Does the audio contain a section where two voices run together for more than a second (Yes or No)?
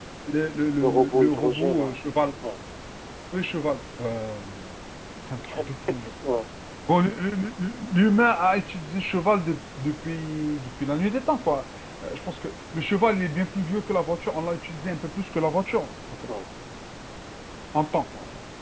Yes